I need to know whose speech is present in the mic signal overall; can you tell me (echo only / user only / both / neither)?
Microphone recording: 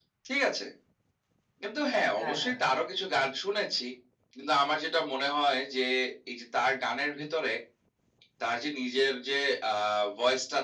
both